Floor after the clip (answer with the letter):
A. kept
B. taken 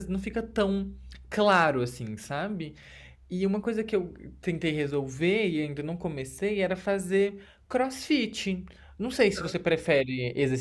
A